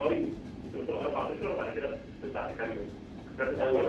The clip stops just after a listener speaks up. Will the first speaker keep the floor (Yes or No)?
No